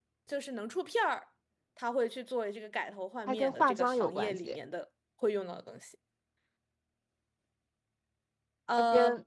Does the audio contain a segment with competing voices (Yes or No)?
Yes